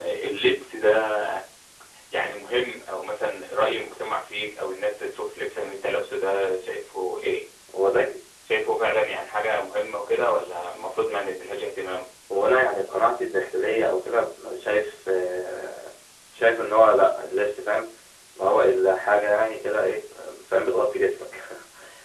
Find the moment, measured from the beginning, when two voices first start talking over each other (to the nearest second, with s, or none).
none